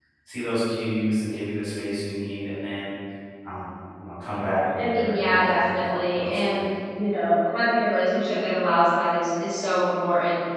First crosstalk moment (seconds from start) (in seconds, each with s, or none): 4.7 s